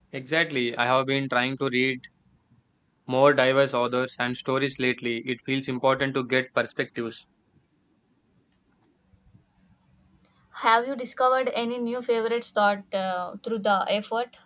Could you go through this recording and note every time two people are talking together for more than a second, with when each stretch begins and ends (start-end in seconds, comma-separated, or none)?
none